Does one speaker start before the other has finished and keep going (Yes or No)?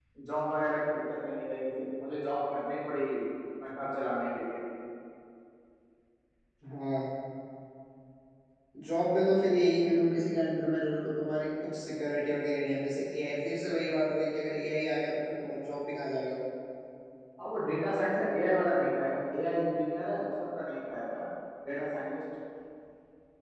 No